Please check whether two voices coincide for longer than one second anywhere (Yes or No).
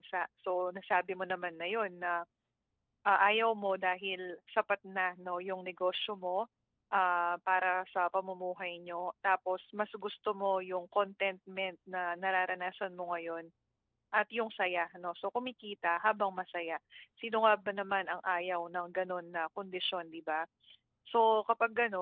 No